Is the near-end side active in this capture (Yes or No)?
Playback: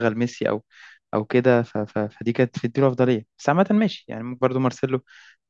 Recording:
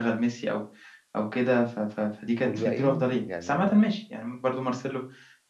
Yes